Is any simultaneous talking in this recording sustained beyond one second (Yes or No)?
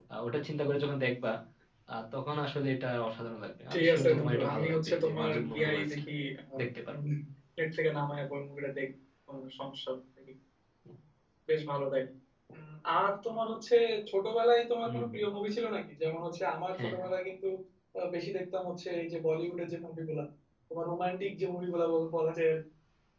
Yes